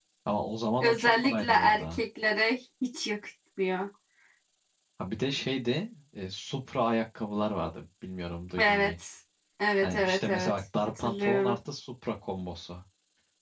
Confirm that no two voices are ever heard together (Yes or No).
No